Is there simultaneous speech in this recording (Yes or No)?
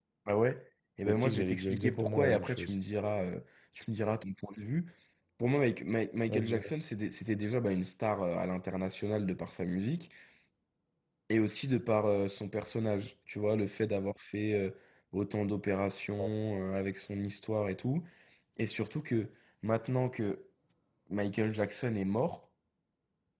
Yes